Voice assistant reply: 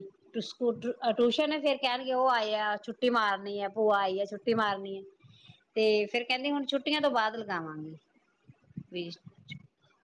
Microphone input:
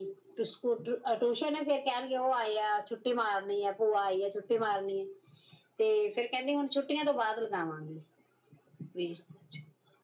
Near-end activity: none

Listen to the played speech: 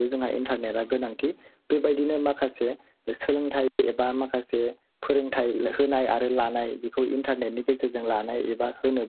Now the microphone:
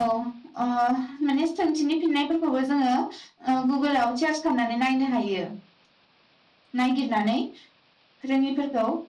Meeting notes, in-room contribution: present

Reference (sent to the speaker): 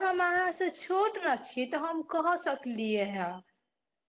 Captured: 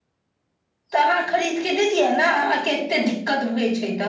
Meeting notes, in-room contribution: present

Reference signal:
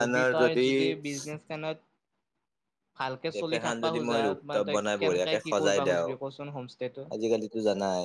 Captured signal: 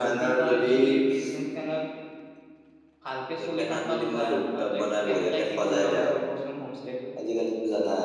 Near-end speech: none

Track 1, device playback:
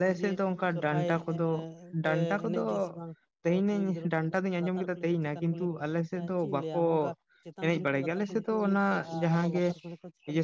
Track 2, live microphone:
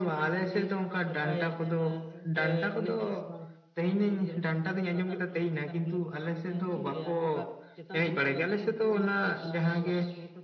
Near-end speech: none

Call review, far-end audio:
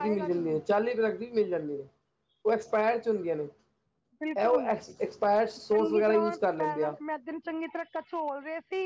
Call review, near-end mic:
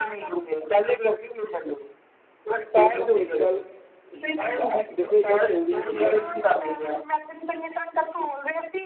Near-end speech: present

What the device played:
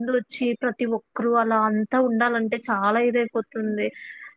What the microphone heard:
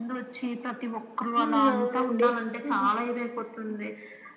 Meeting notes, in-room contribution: present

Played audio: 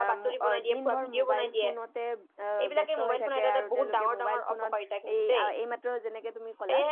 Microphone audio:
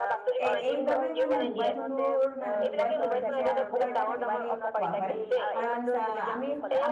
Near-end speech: present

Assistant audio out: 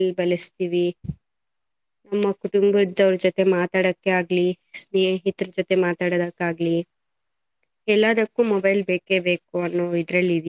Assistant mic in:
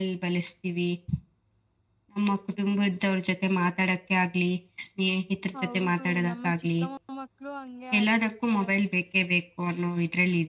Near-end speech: present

